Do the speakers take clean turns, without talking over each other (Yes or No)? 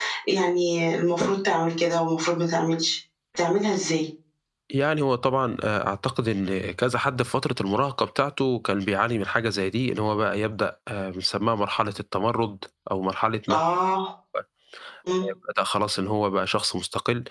Yes